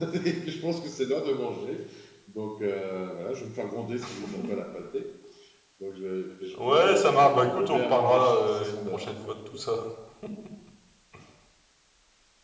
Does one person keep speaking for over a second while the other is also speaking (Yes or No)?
Yes